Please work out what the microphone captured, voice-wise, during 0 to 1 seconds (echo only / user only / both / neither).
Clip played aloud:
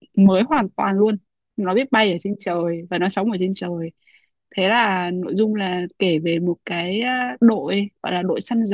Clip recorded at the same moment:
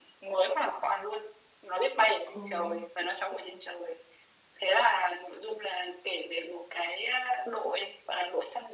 echo only